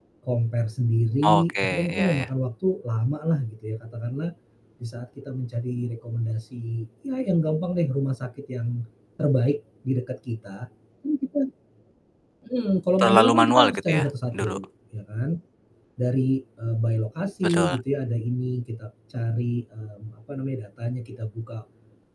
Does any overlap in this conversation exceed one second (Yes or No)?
Yes